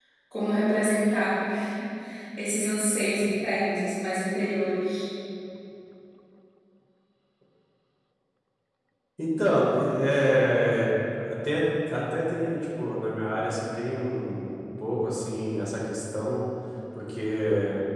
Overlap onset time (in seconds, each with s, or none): none